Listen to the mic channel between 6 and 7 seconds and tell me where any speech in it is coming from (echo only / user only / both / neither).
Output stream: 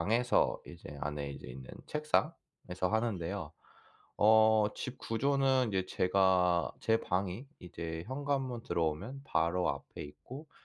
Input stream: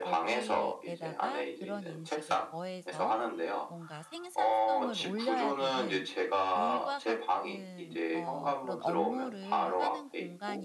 both